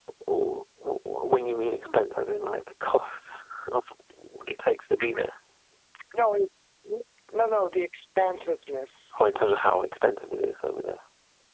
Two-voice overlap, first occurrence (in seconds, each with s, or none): none